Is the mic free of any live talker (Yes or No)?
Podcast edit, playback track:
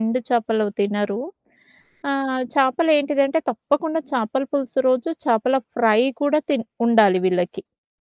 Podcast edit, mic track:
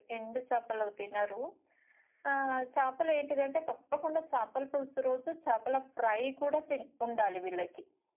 Yes